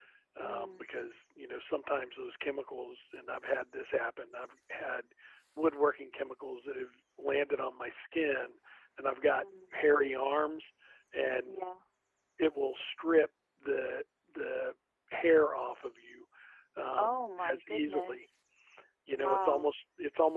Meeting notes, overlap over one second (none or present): present